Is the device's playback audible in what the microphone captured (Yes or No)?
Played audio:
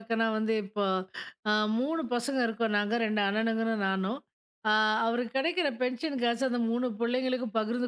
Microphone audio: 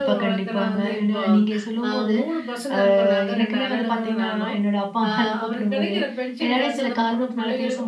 Yes